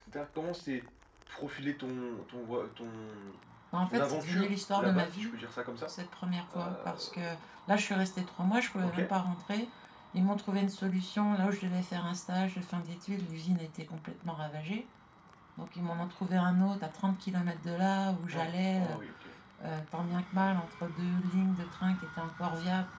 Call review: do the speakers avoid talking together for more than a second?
No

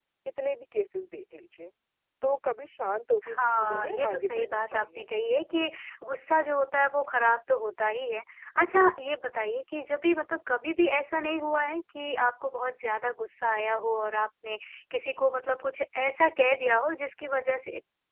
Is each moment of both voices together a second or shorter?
No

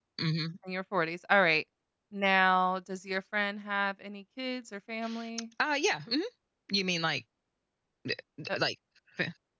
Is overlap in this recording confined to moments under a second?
Yes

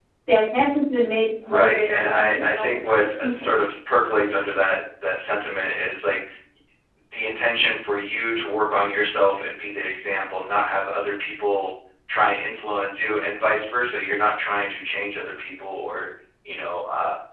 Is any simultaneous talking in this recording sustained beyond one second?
Yes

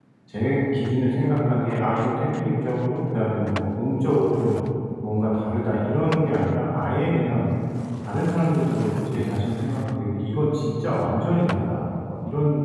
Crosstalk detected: No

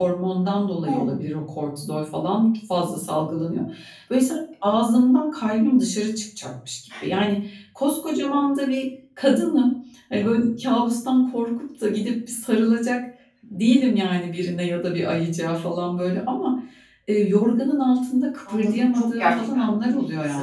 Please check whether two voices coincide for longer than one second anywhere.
Yes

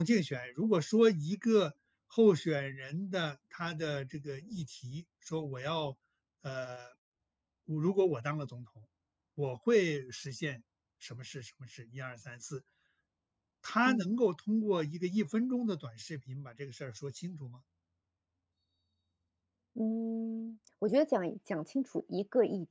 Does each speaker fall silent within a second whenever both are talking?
Yes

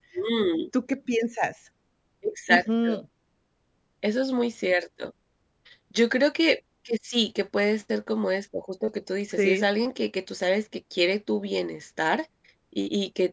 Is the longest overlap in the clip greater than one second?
No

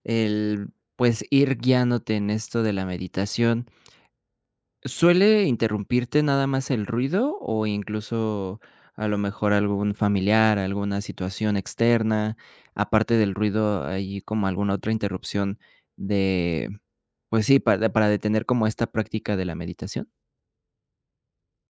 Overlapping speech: No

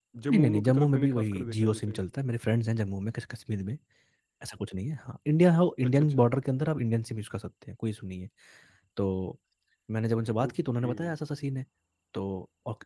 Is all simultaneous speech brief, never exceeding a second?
No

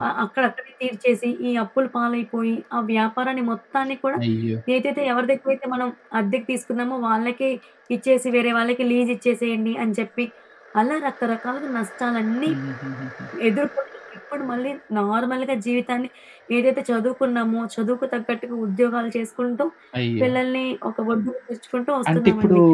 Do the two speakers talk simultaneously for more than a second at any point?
No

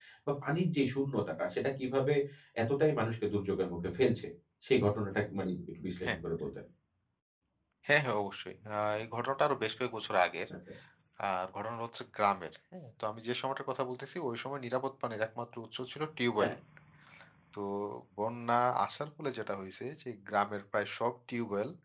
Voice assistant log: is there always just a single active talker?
Yes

